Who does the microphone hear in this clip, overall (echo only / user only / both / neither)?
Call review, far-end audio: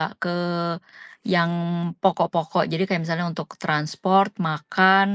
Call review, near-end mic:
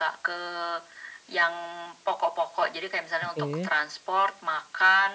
both